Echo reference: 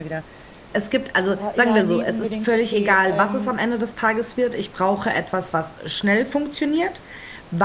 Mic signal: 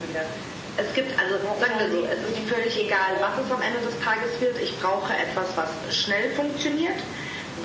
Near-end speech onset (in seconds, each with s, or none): none